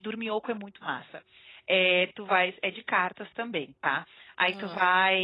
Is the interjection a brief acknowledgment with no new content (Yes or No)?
Yes